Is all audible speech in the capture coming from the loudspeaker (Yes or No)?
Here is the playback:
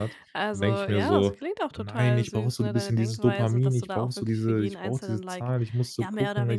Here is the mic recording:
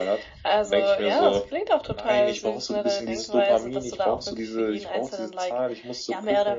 Yes